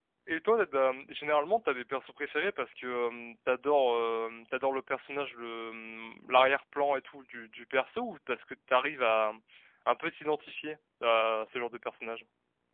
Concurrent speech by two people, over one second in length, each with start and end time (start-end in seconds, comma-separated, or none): none